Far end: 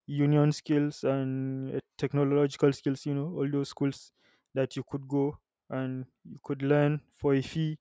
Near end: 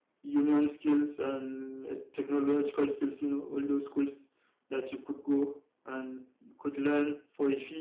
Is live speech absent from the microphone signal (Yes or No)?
Yes